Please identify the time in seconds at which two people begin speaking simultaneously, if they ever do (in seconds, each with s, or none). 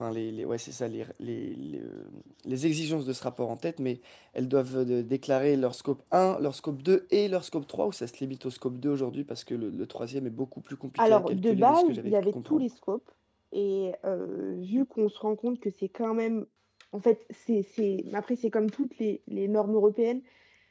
11.0 s